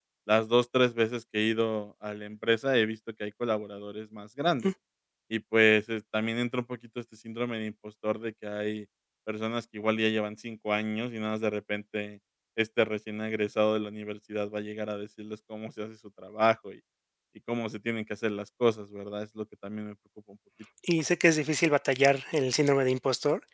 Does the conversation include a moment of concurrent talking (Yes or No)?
No